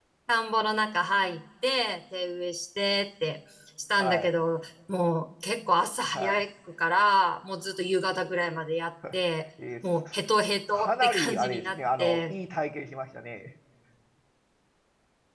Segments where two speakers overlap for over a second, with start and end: 10.7-12.4

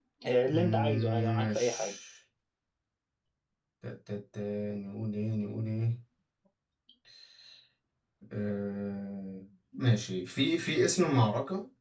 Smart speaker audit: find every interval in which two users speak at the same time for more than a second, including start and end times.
0.5-1.9

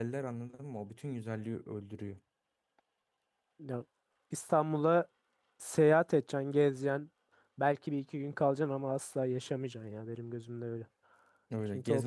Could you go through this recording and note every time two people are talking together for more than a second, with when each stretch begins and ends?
none

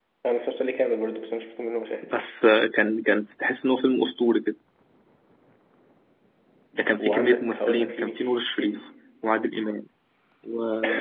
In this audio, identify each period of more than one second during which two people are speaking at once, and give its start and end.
7.0-8.7

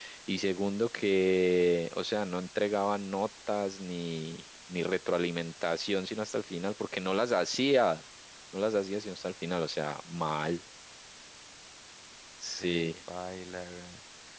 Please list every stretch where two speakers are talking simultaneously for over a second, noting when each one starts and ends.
none

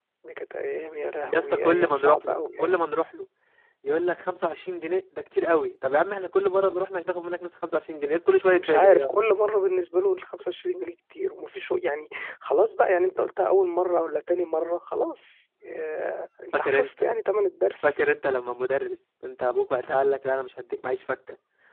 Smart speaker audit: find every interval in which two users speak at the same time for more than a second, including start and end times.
1.3-2.7

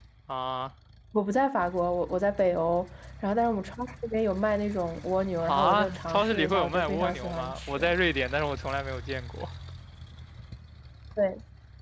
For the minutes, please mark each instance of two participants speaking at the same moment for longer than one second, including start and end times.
5.4-7.8

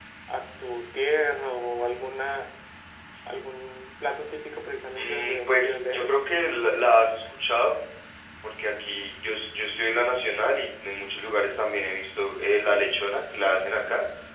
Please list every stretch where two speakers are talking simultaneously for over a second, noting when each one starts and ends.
4.9-6.2

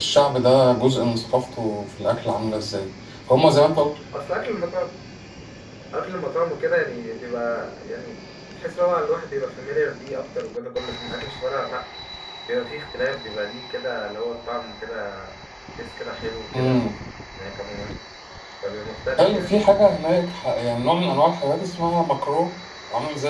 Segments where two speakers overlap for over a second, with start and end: none

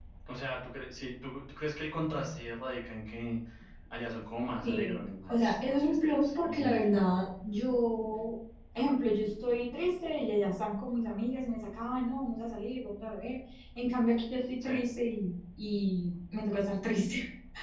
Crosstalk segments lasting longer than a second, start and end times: 4.6-7.1

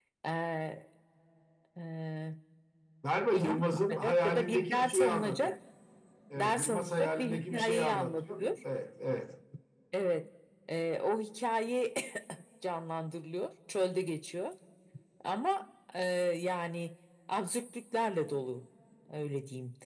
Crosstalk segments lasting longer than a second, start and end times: 3.3-5.5, 6.3-8.4

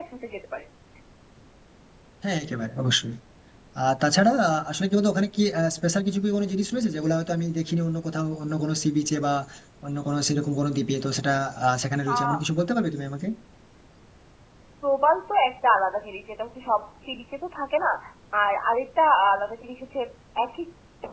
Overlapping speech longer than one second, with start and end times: none

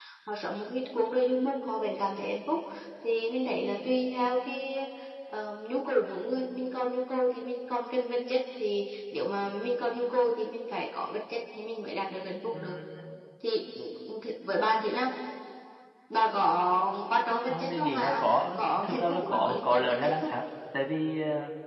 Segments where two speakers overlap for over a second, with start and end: 17.4-20.3

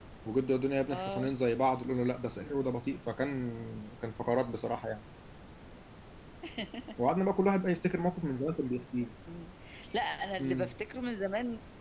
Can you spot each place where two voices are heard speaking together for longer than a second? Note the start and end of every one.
none

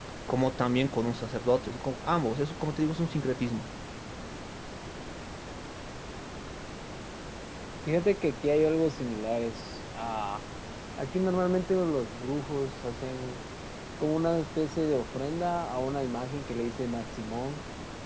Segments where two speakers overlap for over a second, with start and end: none

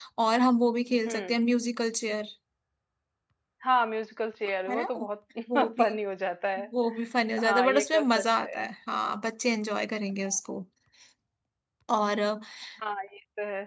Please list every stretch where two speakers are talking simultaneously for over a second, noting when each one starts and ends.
7.4-8.7

